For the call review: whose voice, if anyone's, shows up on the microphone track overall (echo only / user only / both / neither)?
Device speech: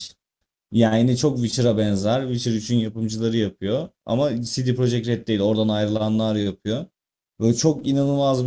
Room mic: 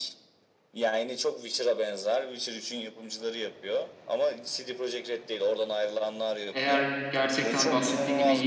both